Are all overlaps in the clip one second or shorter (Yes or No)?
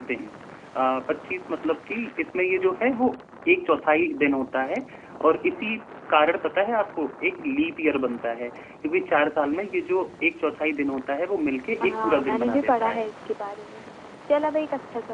No